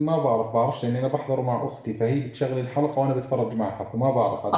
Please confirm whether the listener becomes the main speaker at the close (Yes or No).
Yes